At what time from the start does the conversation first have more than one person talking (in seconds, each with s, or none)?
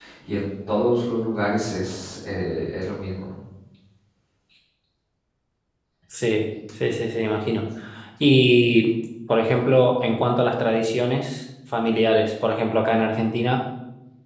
none